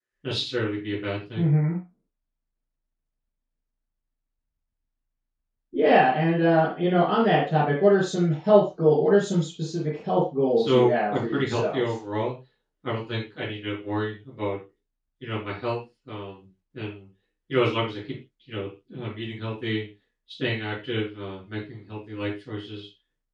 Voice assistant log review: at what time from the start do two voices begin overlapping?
10.6 s

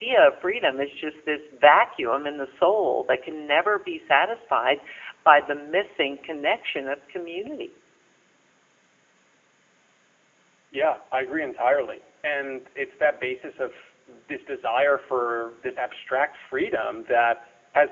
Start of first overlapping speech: none

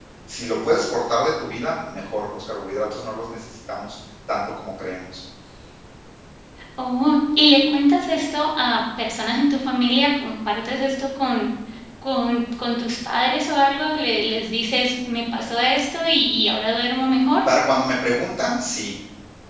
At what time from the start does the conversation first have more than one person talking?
none

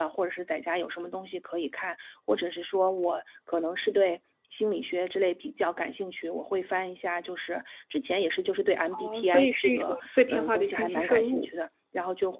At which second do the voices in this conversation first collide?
8.9 s

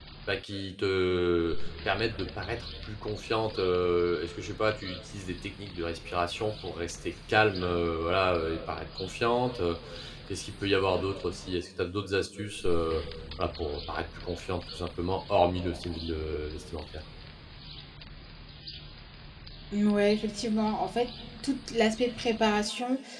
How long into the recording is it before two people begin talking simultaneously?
none

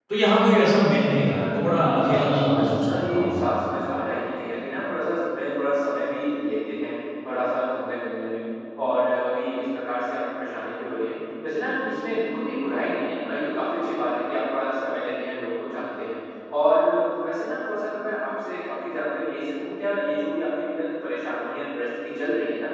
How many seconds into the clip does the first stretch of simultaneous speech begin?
1.7 s

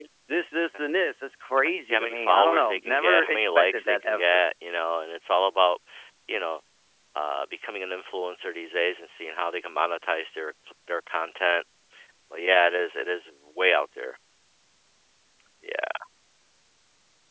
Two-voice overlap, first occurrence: 1.6 s

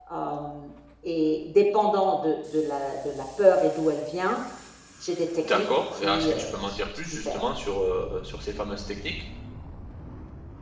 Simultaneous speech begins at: 5.4 s

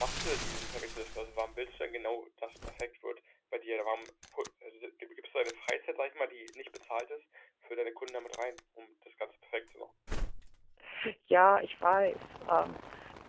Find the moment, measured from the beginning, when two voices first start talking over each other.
none

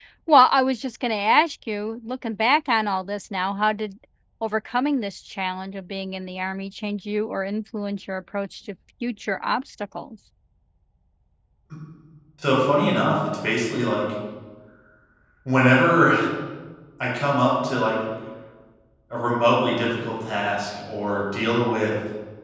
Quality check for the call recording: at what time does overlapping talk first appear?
none

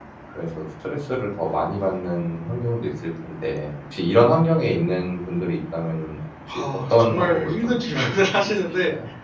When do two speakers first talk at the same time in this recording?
6.5 s

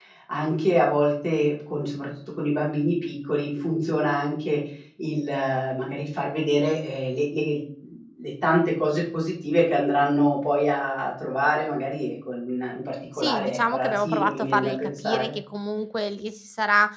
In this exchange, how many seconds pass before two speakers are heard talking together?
13.2 s

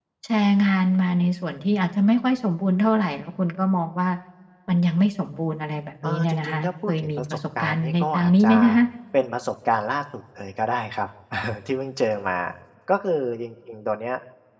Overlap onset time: 6.0 s

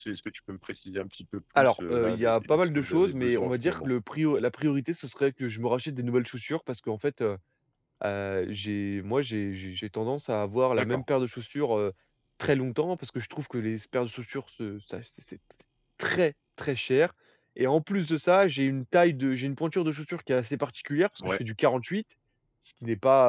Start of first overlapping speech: 1.6 s

